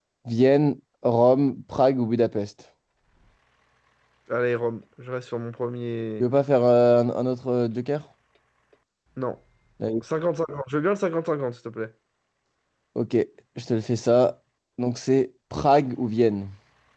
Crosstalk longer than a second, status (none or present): none